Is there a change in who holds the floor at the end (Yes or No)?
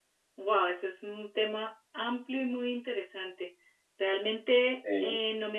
No